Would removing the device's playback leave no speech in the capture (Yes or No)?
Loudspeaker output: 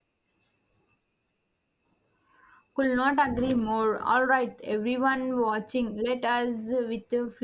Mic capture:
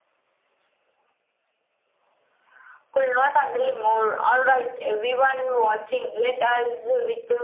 Yes